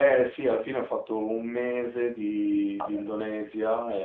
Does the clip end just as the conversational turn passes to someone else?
No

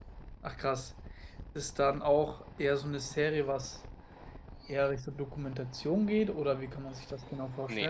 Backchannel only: No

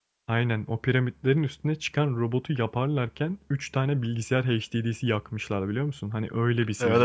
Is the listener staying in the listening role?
No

